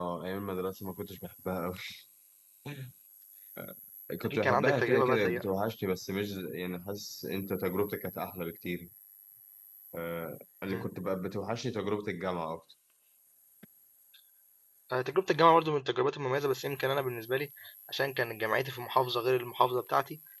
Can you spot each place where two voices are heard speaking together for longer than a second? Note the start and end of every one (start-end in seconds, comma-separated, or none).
4.2-5.4